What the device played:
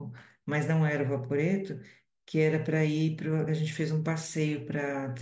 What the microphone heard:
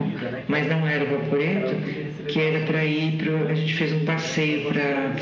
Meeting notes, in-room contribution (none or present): present